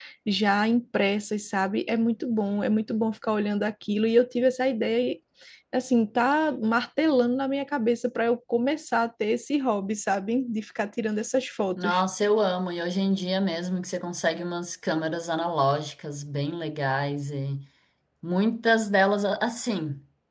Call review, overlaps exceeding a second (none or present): none